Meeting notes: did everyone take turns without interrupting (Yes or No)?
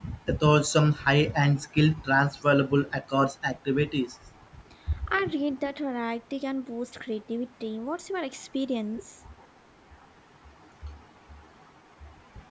Yes